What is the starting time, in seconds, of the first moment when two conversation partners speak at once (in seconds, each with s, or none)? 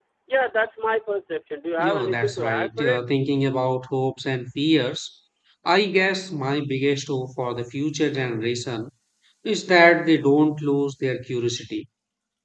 1.8 s